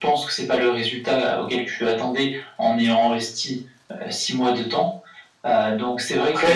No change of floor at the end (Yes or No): No